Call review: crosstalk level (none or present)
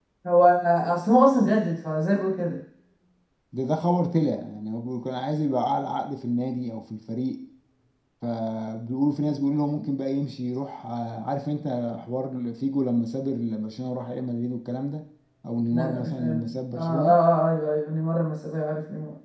present